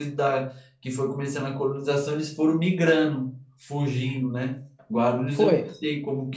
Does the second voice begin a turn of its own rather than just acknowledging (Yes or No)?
Yes